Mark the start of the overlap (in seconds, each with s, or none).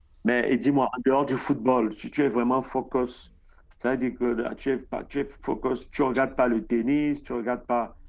none